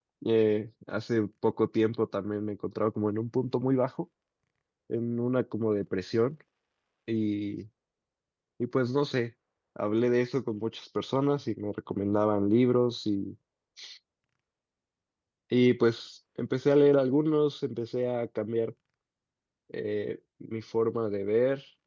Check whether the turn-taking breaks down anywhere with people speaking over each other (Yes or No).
No